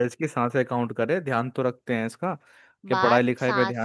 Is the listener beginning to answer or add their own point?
Yes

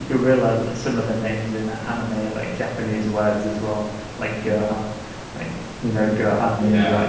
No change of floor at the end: No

